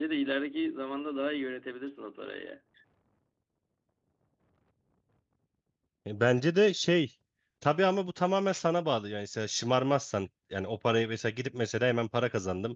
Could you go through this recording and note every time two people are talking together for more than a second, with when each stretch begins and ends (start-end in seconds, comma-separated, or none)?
none